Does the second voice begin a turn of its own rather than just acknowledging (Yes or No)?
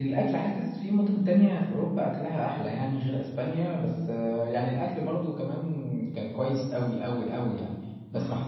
No